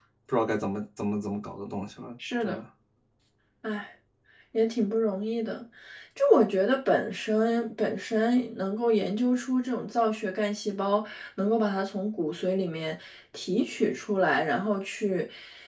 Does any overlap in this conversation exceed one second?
No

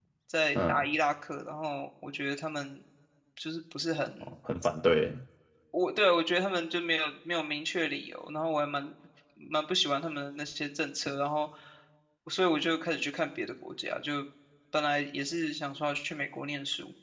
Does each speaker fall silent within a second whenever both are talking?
Yes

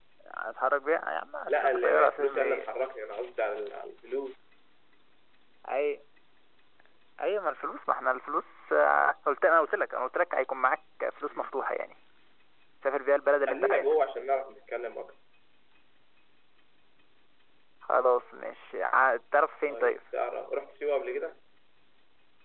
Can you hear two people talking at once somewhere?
Yes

